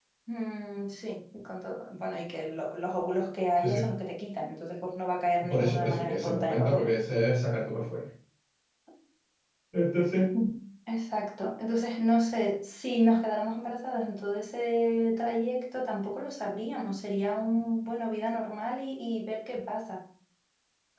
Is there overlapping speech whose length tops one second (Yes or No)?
Yes